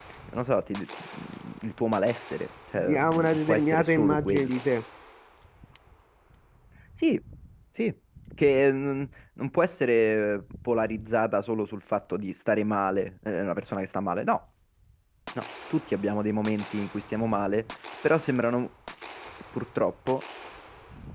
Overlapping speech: Yes, from 2.8 s

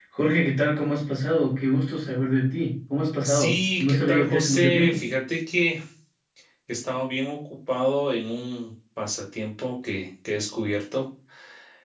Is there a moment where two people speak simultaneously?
Yes, from 3.2 s

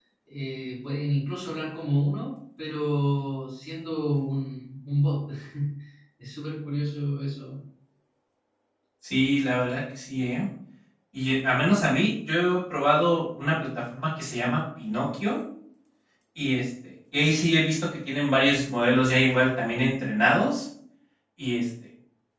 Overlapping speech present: No

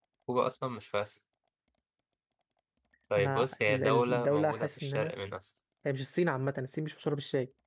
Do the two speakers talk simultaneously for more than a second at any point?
Yes, from 3.2 s

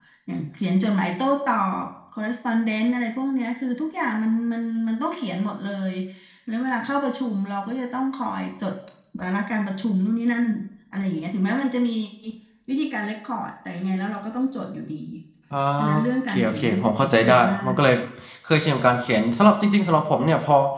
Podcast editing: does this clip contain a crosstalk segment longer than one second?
Yes, from 16.0 s

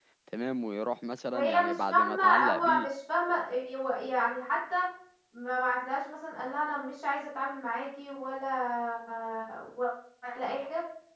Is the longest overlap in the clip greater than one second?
Yes, from 1.2 s

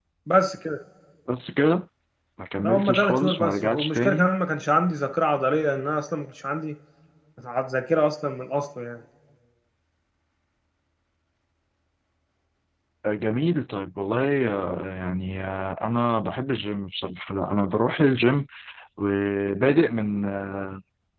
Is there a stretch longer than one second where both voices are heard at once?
Yes, from 2.6 s

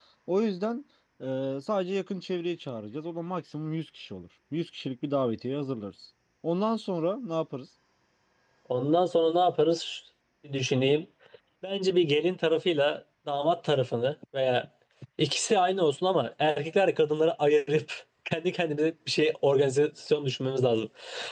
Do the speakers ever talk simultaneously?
No

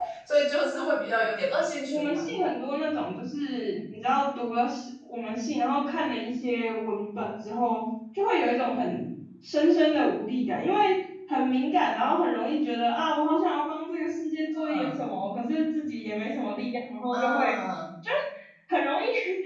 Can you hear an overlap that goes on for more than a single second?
No

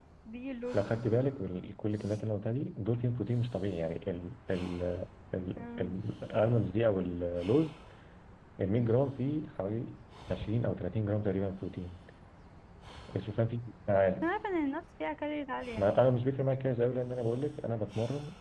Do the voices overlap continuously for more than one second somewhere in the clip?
No

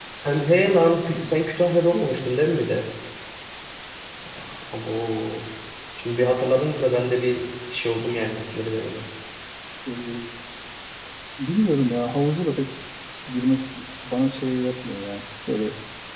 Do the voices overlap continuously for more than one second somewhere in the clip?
No

